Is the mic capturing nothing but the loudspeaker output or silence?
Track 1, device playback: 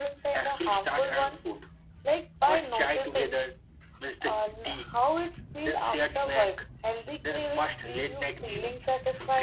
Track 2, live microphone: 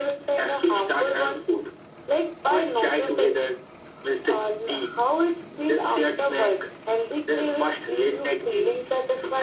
Yes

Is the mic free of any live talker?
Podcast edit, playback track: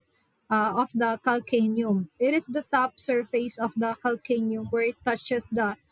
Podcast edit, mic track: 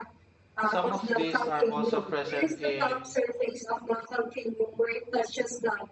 No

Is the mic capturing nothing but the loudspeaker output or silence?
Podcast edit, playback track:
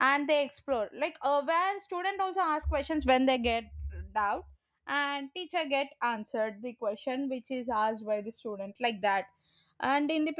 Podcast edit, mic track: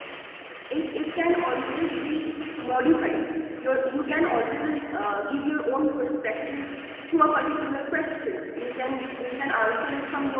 No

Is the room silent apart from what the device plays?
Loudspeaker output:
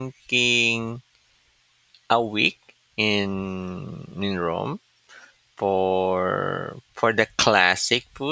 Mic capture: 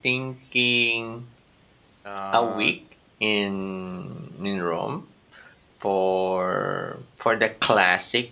No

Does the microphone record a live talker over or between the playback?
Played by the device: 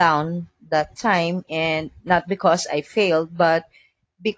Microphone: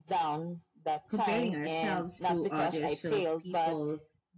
Yes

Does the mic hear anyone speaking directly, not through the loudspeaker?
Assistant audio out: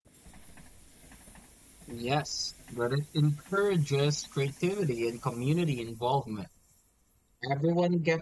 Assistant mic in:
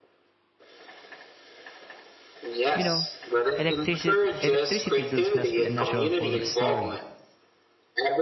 Yes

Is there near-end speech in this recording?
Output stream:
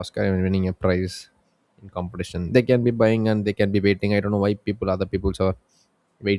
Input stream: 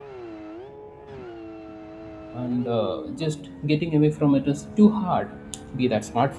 Yes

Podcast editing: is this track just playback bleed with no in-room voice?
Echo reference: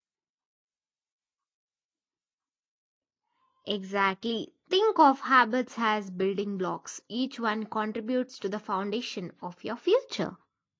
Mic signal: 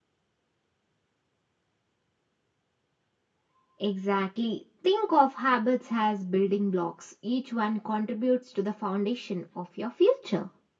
Yes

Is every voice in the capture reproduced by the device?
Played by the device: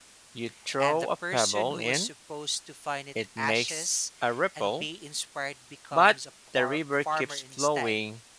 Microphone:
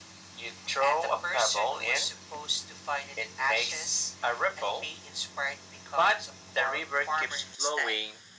Yes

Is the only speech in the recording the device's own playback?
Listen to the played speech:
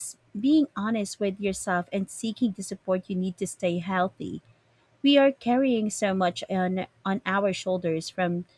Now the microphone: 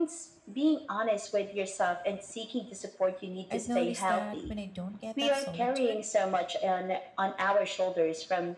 No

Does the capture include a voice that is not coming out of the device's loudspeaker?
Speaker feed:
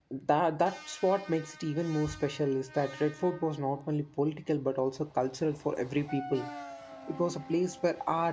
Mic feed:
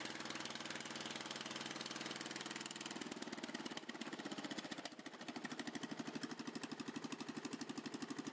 No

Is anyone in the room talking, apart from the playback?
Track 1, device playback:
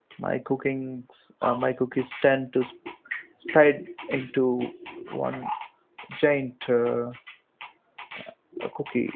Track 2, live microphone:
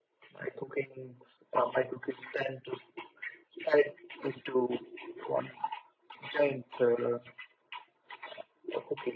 No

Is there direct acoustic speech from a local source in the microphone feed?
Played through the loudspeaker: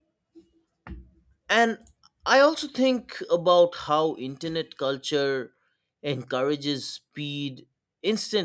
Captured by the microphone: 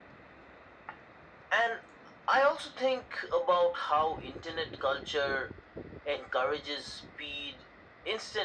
No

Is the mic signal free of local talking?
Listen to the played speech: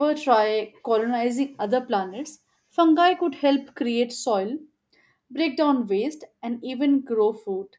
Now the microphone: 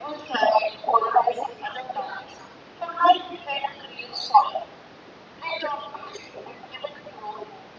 Yes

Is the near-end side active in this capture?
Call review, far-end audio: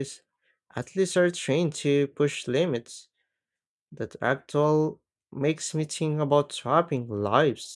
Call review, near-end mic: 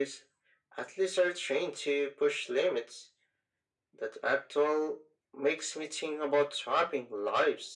No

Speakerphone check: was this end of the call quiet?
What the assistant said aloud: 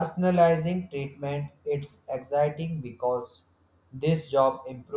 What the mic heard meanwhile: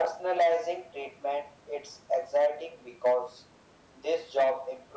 Yes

